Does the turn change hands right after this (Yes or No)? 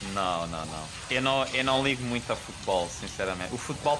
No